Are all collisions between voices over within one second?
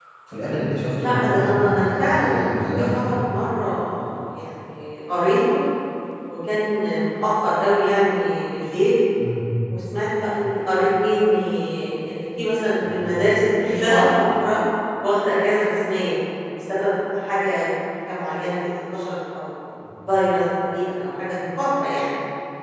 No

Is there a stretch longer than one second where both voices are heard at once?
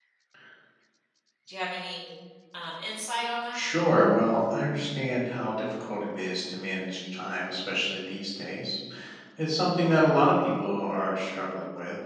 No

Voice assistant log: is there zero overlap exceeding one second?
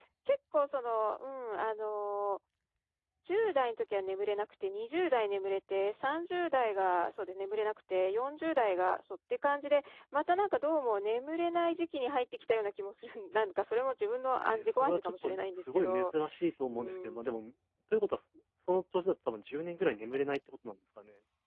No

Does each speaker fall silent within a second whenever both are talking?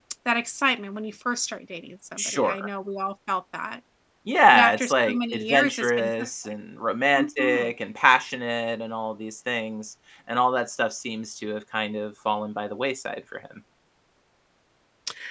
No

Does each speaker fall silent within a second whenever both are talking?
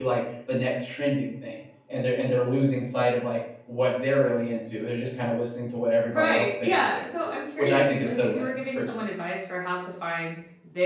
No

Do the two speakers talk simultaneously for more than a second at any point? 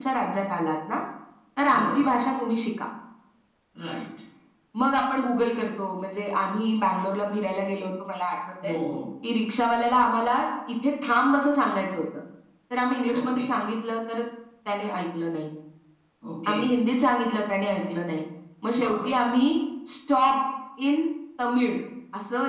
No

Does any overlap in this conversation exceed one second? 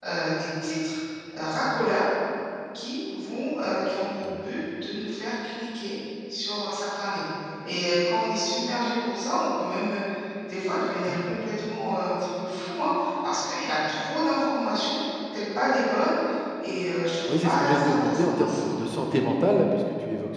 Yes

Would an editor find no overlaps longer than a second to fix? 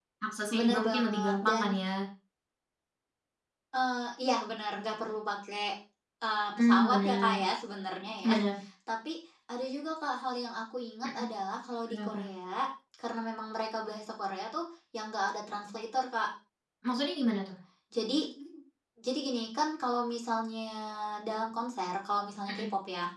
No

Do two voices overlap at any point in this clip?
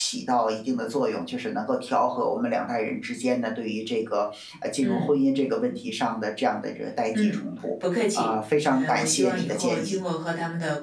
Yes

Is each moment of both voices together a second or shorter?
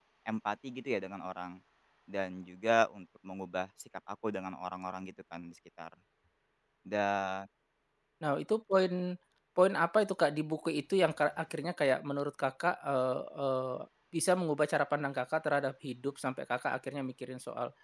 Yes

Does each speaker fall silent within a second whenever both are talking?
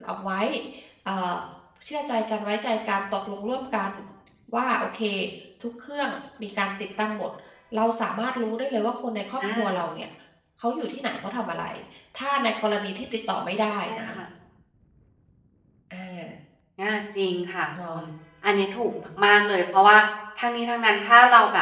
Yes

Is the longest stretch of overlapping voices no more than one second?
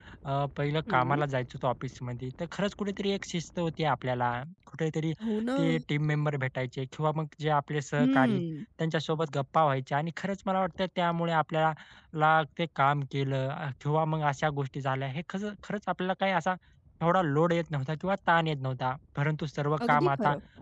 Yes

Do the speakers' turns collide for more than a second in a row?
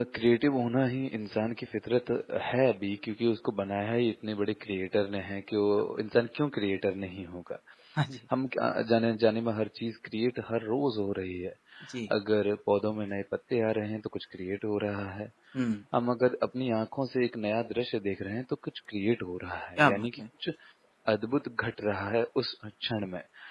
No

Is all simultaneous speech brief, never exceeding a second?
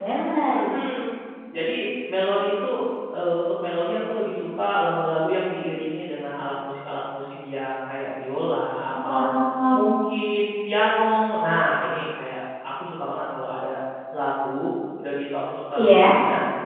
Yes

